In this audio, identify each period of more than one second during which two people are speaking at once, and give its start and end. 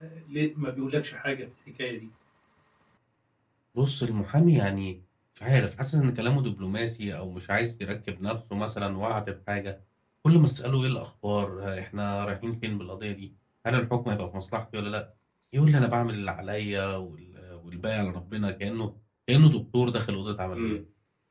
none

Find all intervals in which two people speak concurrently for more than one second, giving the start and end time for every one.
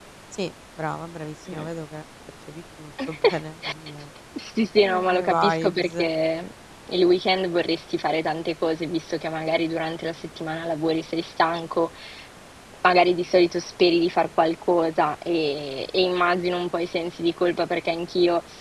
4.8-6.1

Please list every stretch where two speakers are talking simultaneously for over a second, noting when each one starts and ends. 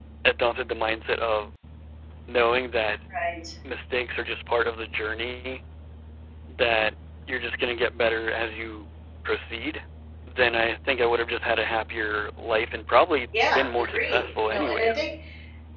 13.3-15.0

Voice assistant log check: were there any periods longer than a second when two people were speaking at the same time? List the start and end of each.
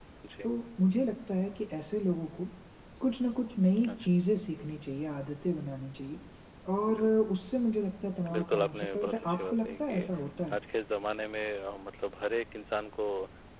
8.3-10.1

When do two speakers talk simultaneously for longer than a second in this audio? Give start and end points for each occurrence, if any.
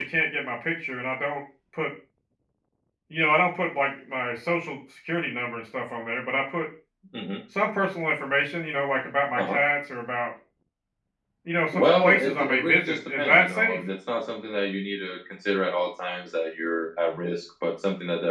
11.7-13.8

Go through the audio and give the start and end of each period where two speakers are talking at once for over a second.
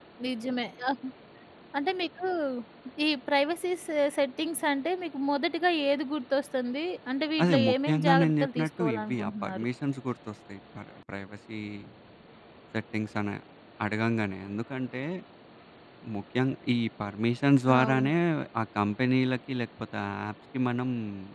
7.4-9.7

